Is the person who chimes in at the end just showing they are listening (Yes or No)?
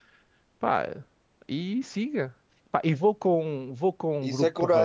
No